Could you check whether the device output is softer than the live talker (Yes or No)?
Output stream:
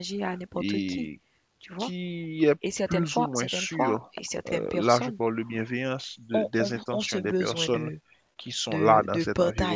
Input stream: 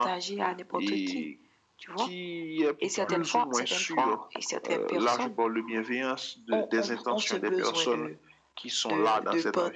No